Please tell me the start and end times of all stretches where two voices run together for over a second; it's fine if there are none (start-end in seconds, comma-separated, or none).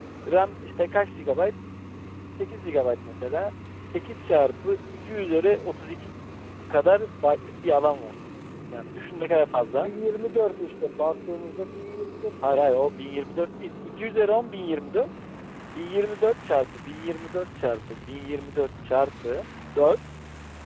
none